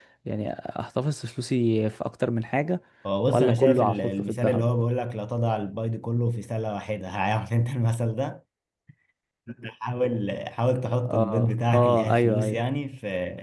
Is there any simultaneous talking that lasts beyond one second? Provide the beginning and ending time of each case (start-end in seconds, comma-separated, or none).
3.3-4.7, 11.1-12.6